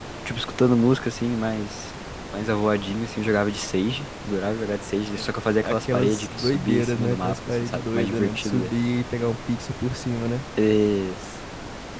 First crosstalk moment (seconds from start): 5.6 s

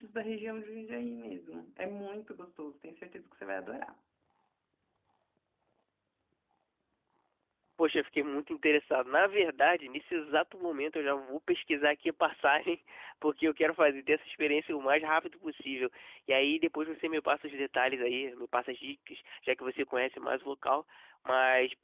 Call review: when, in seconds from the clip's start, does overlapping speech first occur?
none

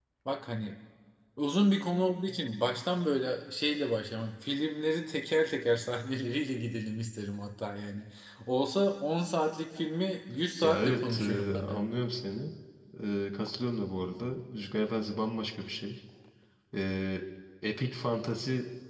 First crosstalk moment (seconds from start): 10.6 s

